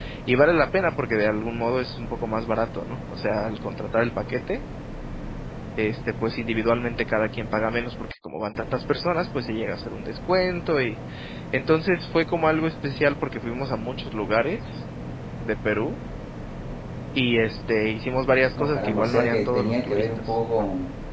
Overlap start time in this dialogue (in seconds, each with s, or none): 18.6 s